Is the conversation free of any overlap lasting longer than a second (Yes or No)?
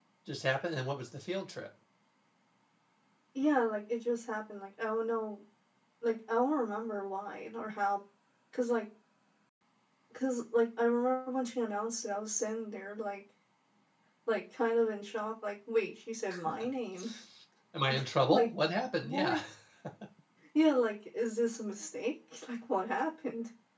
Yes